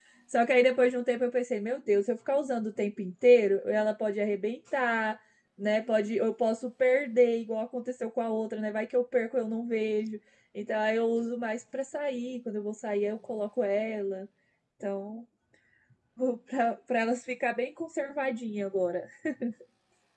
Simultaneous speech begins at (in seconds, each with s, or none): none